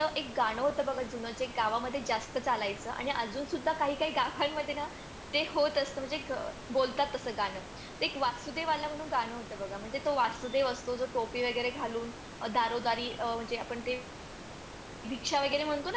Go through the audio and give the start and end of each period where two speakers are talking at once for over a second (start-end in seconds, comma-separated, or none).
none